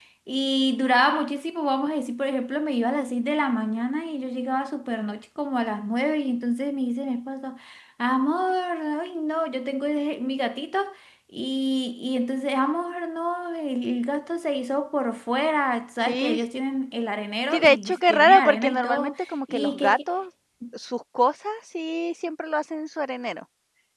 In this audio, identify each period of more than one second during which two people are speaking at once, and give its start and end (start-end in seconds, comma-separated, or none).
17.5-20.1